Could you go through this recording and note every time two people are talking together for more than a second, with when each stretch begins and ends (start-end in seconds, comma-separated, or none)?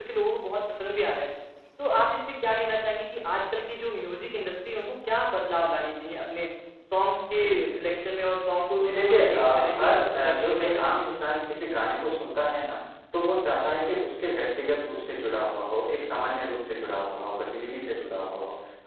8.8-10.9